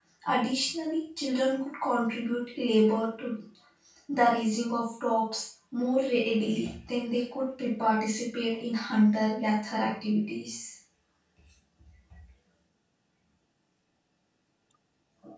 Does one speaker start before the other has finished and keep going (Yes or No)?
No